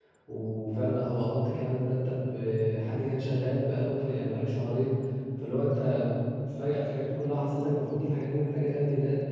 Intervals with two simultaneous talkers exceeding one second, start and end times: none

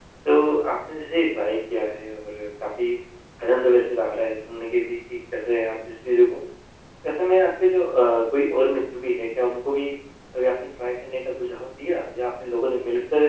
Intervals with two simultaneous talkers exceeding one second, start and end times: none

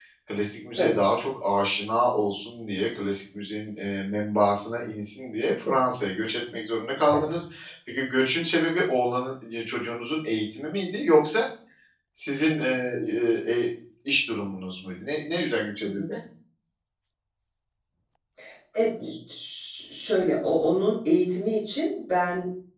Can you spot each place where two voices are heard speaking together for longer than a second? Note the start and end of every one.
none

